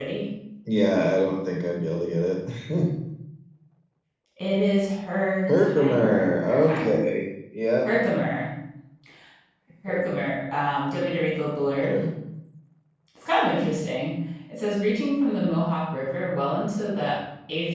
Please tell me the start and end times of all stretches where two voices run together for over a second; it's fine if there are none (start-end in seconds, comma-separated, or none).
5.5-7.0